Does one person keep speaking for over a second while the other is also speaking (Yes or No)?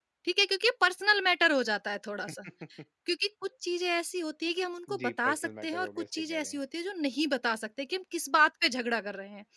Yes